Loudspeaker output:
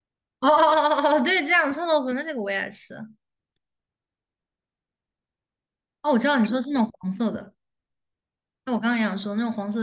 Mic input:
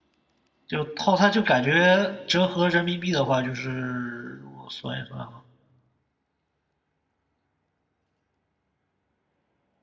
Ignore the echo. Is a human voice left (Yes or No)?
Yes